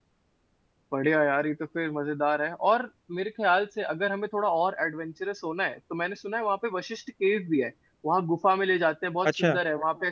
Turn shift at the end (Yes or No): No